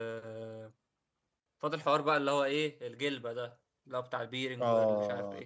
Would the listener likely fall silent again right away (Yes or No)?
No